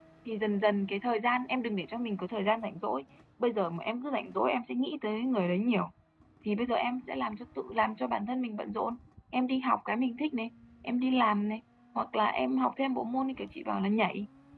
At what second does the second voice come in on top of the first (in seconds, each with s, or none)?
none